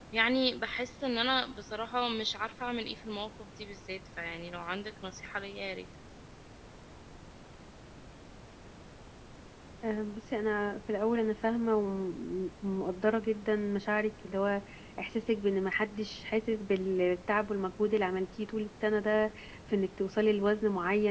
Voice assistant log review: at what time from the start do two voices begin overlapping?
none

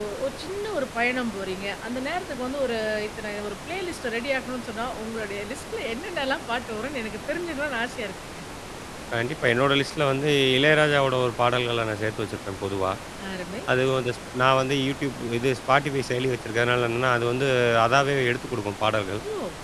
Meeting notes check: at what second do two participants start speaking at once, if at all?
none

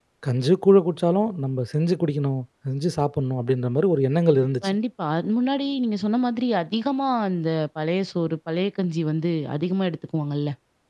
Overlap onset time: none

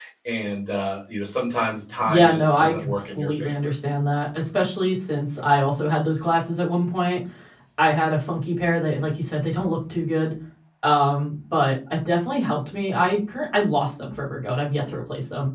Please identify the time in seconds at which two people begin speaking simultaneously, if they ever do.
2.0 s

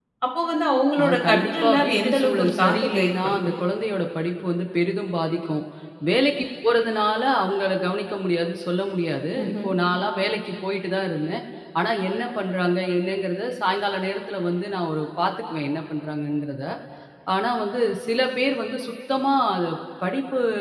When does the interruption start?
1.0 s

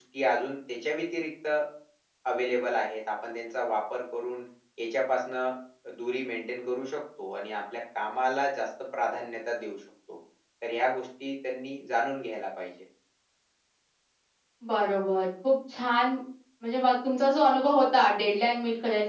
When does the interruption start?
none

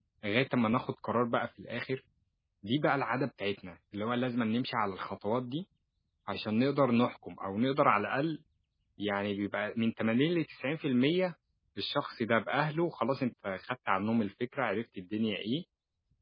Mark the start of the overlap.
none

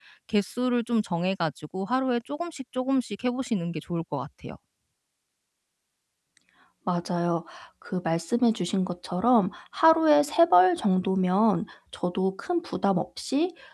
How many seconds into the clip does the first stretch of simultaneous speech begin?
none

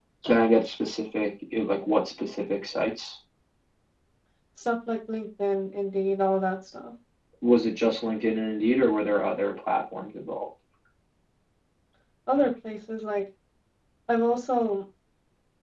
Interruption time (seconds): none

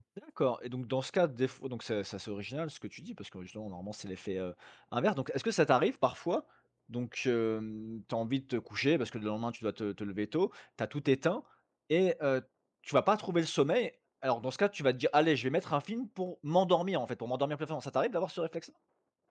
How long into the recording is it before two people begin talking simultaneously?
none

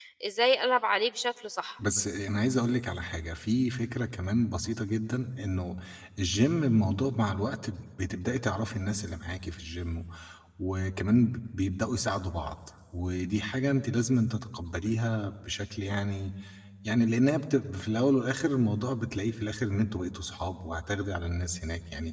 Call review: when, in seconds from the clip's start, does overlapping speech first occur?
none

